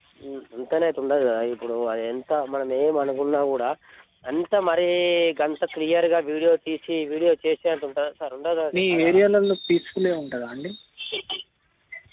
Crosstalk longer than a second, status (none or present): none